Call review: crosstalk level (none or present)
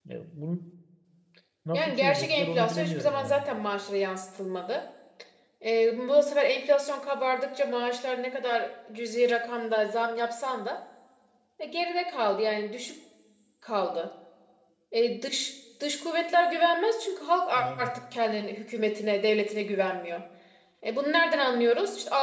present